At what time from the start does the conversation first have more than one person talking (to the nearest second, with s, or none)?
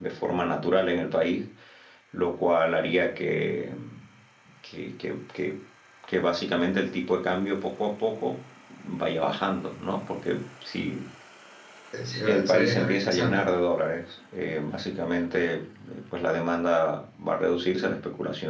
12 s